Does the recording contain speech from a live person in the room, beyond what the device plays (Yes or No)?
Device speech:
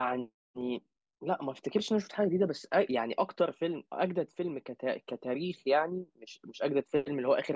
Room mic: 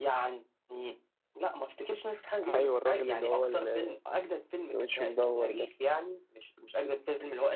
Yes